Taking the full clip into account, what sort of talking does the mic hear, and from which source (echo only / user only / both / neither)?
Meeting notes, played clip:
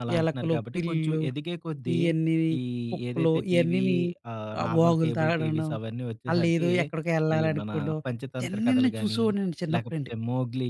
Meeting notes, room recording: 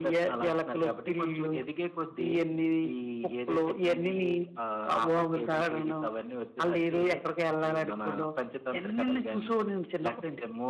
echo only